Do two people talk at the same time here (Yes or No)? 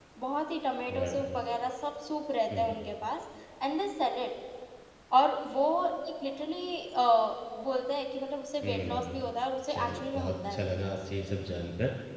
Yes